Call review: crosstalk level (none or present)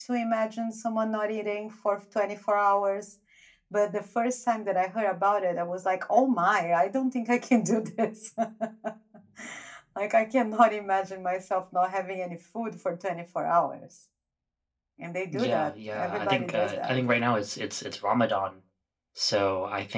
present